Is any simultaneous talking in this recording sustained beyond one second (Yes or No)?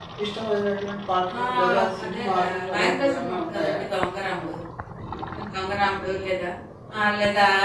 Yes